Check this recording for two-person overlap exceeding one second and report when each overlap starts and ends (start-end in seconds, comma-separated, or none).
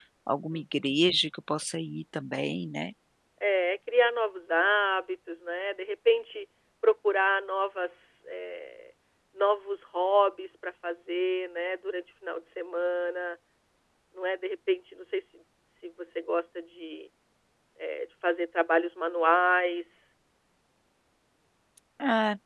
none